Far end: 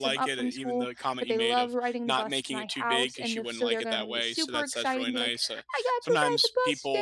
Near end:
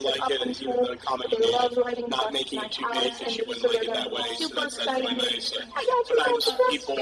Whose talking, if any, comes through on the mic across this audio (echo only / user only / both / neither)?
both